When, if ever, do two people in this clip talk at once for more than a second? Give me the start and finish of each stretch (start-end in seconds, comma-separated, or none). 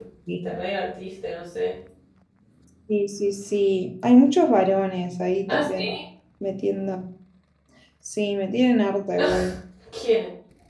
none